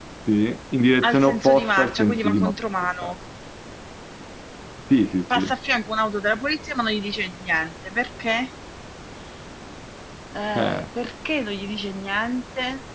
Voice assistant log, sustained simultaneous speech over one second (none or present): present